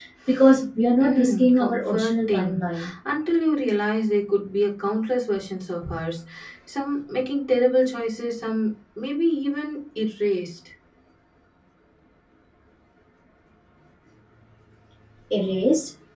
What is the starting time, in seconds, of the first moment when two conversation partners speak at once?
1.0 s

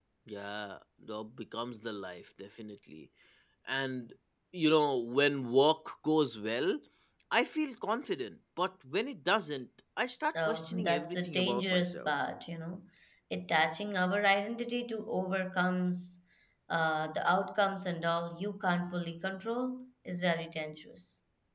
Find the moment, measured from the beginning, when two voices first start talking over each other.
10.3 s

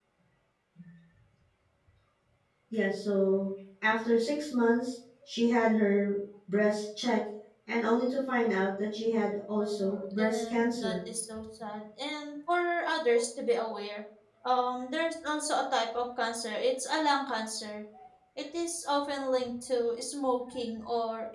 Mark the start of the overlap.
9.6 s

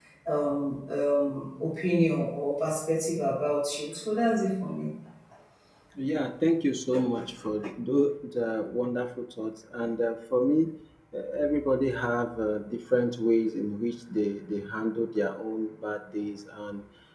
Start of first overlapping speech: none

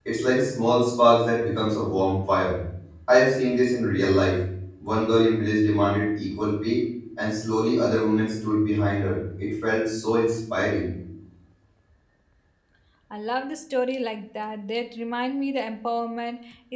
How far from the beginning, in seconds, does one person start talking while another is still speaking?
none

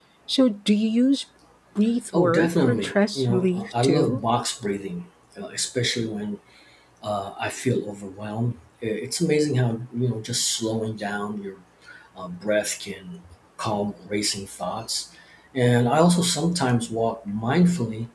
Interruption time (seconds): 2.1 s

